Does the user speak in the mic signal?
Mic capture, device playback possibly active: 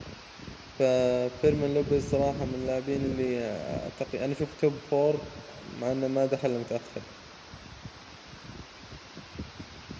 Yes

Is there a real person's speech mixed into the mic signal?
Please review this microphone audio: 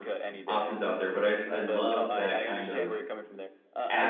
Yes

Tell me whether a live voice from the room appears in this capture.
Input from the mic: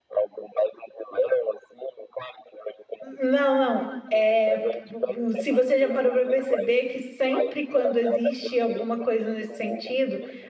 Yes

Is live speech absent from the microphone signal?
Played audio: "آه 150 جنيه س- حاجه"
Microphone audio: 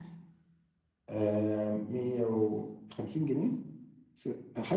Yes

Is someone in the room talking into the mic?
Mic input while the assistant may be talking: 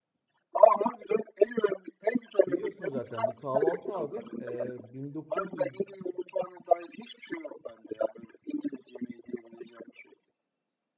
Yes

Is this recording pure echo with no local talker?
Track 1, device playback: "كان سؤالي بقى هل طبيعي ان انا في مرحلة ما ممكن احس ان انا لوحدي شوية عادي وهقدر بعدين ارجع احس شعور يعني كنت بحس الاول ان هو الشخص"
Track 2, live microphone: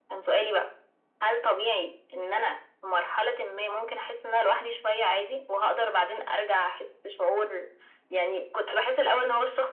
Yes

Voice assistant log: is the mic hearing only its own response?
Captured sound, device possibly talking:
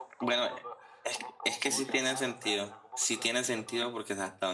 No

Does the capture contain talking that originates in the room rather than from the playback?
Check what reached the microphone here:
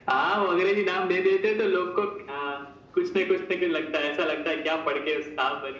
No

